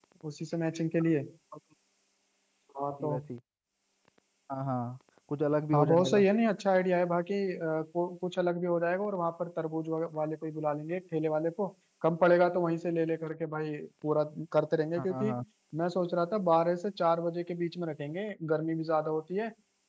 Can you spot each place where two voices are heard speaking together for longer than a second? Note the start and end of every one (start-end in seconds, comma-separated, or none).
none